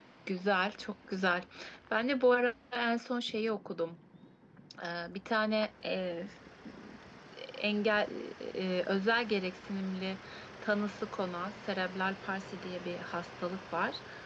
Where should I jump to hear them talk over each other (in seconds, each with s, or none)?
none